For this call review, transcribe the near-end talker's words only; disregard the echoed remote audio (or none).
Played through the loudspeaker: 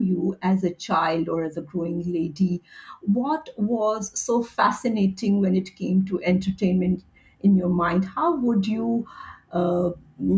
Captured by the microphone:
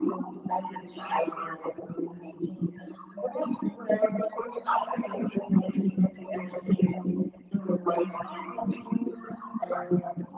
none